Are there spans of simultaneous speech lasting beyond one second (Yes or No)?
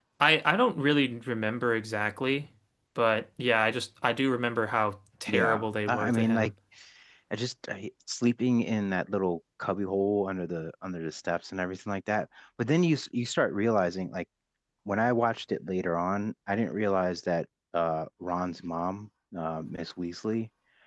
Yes